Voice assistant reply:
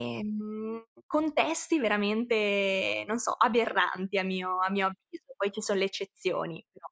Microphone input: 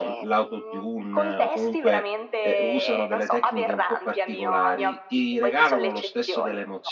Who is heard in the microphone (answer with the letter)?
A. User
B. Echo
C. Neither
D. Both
D